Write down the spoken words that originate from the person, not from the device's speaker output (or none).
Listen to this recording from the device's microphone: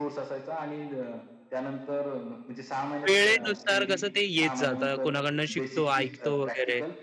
वेळेनुसार कसं ते येत जातं. कोणाकडनं शिकतो, ऐकतो वगैरे.